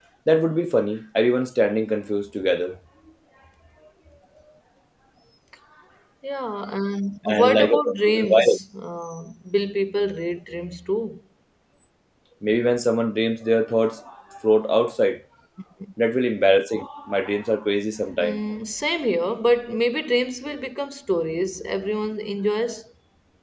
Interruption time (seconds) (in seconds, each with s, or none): 7.2 s